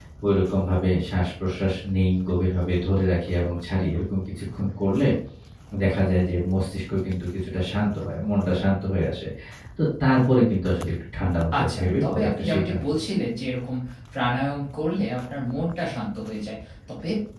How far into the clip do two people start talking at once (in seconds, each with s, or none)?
11.5 s